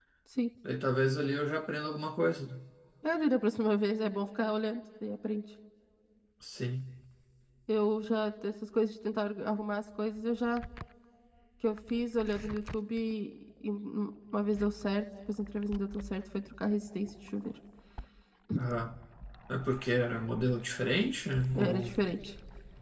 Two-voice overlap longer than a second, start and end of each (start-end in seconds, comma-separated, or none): none